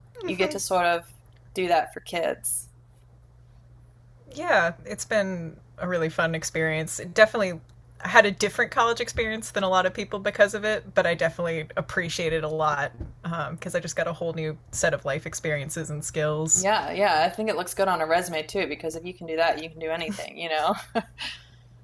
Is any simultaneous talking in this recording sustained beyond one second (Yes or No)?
No